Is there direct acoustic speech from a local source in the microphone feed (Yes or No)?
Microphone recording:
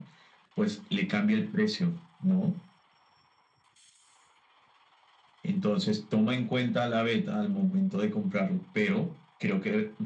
No